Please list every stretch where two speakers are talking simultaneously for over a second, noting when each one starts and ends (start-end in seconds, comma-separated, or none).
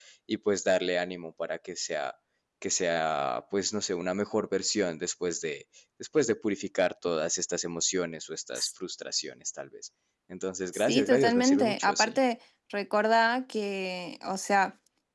10.7-12.2